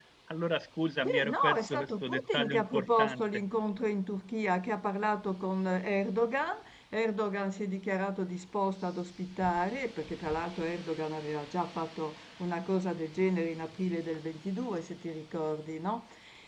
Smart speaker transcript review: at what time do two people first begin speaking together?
1.1 s

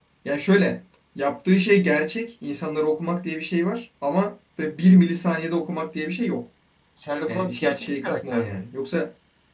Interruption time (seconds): 7.3 s

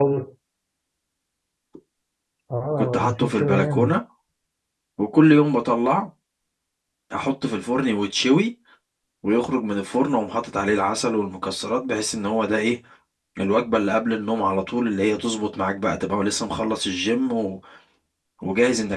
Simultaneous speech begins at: 2.7 s

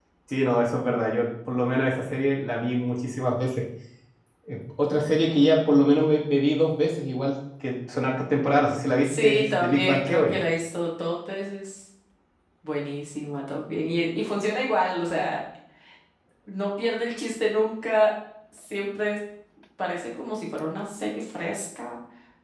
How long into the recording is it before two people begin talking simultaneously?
9.0 s

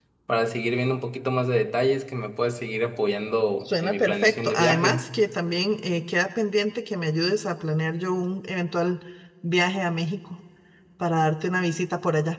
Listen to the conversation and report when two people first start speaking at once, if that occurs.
3.7 s

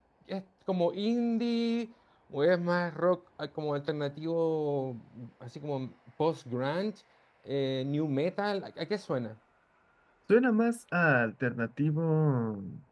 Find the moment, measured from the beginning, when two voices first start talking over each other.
none

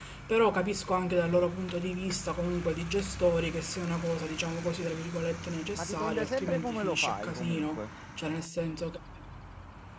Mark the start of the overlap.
5.7 s

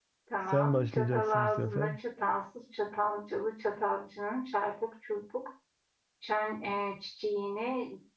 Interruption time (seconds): 0.5 s

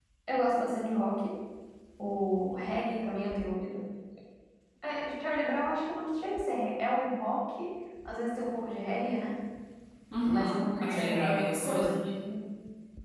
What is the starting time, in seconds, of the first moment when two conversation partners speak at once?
10.2 s

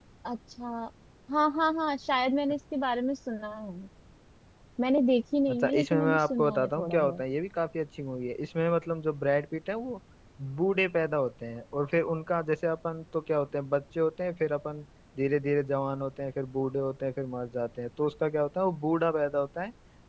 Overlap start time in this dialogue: 5.5 s

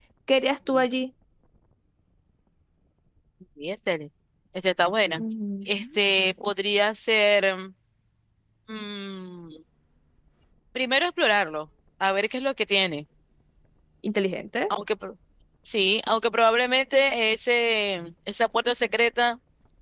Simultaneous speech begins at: none

